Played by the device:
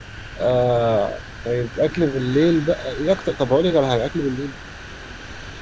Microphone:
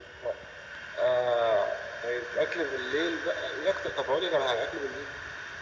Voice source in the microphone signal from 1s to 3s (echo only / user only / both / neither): echo only